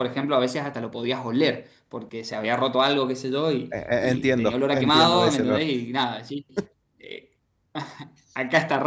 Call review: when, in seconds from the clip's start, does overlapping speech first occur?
3.7 s

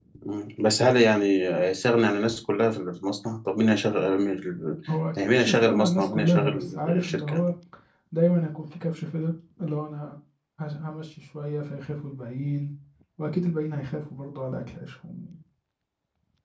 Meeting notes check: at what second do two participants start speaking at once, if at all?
5.2 s

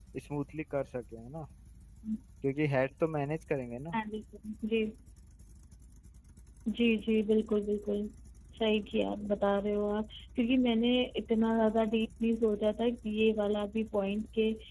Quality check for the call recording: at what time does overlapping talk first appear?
none

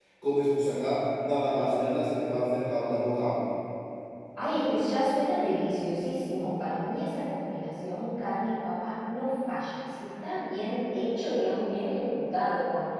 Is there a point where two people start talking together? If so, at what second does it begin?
none

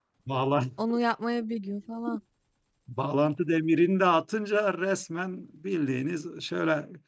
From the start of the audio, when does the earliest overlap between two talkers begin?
none

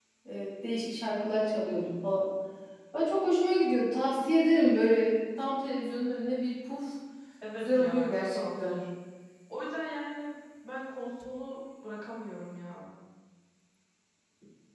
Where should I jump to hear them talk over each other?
7.6 s

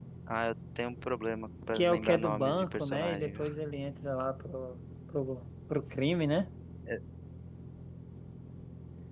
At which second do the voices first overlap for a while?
1.7 s

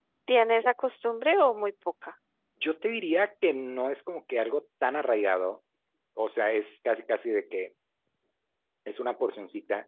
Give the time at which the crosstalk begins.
none

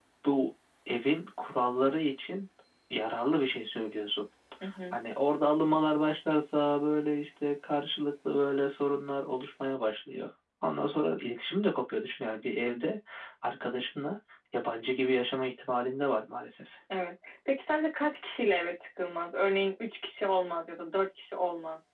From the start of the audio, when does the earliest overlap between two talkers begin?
none

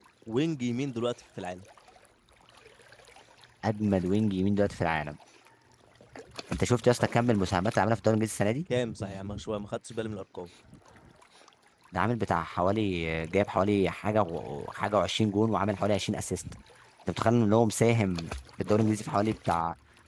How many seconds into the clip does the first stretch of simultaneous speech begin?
none

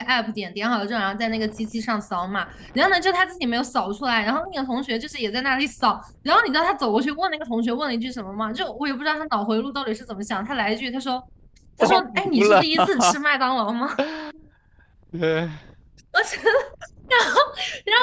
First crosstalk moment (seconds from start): 11.8 s

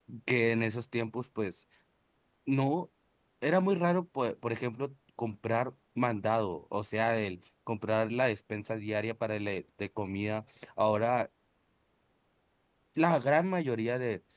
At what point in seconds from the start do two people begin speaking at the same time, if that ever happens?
none

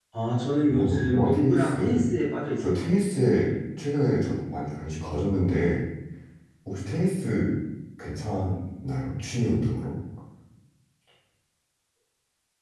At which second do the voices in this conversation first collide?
0.7 s

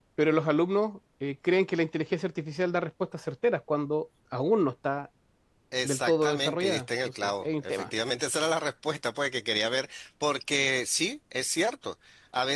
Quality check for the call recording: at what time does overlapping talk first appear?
5.8 s

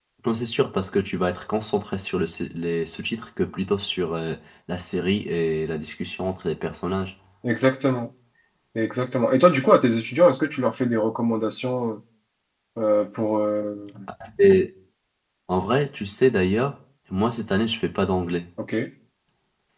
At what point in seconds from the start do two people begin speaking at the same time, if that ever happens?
none

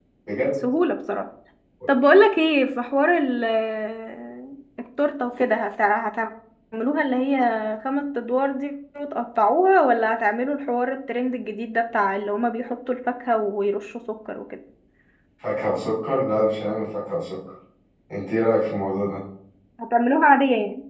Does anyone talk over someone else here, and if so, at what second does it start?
none

